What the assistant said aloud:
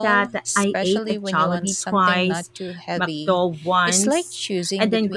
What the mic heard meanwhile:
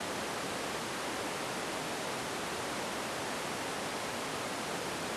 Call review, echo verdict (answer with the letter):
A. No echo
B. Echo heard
A